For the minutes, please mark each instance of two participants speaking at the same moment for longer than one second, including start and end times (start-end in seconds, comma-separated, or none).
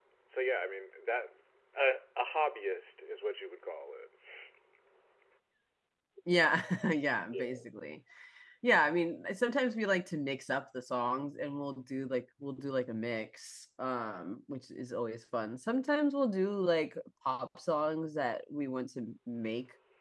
none